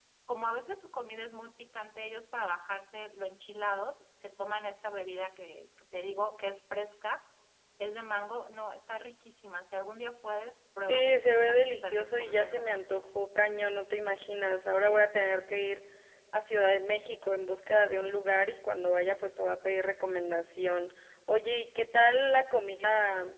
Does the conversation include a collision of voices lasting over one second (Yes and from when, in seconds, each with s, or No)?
Yes, from 10.9 s